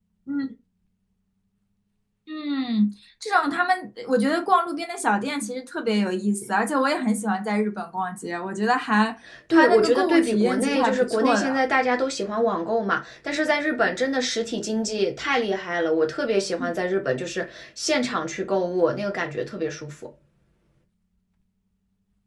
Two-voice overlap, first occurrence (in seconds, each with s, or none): 9.5 s